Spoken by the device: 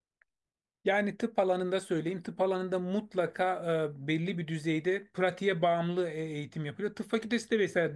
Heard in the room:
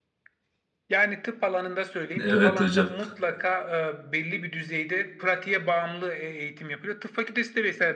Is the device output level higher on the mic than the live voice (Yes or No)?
No